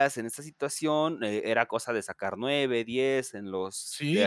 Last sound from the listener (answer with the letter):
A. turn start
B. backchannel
A